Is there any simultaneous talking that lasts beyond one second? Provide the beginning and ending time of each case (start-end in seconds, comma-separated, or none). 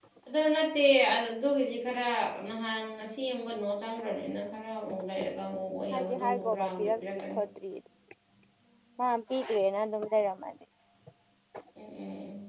5.9-7.4